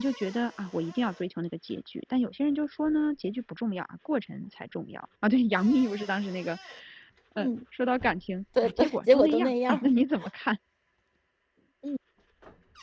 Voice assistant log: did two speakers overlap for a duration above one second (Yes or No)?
Yes